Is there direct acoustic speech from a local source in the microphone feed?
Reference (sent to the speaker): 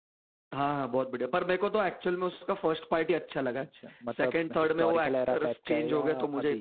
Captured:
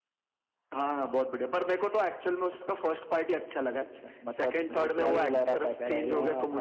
Yes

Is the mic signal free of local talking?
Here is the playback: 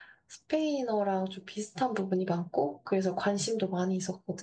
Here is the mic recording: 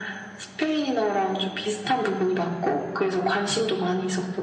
Yes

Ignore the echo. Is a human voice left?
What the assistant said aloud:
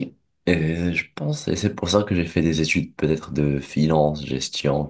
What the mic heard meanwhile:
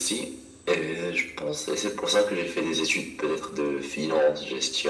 No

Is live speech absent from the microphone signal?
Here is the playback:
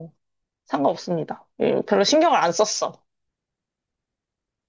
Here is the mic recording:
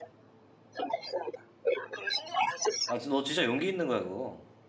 No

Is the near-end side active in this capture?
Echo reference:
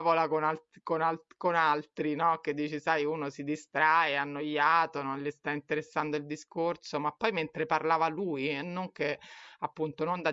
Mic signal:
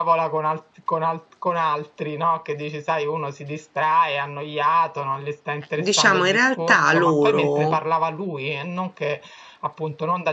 Yes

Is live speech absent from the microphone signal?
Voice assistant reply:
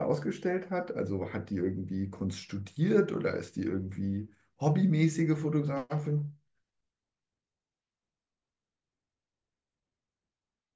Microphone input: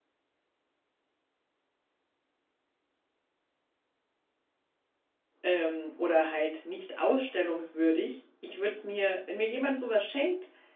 No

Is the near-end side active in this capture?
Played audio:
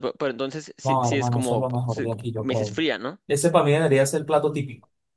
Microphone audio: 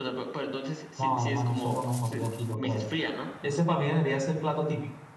No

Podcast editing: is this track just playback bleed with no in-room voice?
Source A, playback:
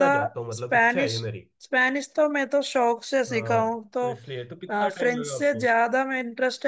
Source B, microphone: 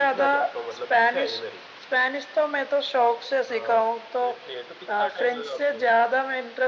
Yes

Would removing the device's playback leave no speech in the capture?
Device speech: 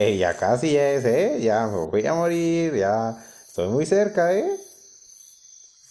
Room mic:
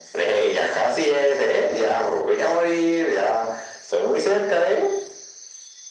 Yes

